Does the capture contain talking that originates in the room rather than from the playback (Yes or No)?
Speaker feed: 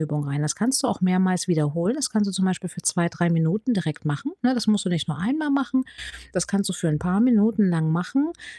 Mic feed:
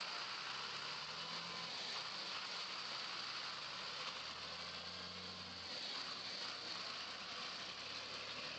No